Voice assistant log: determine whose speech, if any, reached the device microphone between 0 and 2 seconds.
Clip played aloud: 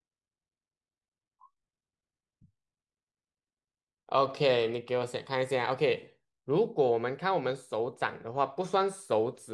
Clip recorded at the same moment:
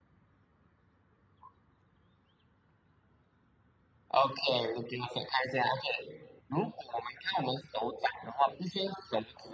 neither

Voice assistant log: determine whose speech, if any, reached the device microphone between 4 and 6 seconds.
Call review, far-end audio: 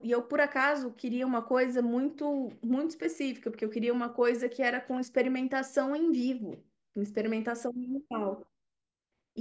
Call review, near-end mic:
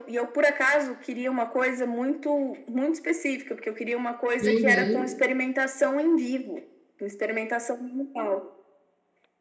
both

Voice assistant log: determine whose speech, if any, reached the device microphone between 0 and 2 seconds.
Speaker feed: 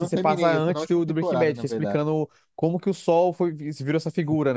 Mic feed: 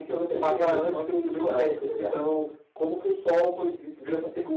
echo only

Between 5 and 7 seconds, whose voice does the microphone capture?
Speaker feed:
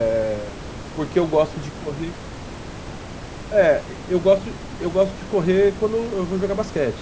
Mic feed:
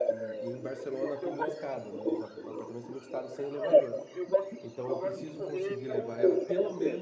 both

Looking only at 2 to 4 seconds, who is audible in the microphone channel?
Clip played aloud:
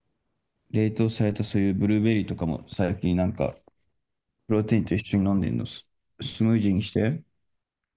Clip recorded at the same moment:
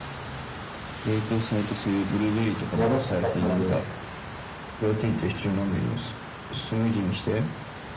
both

